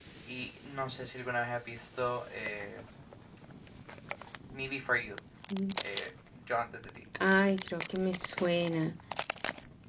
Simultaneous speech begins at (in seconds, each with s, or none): none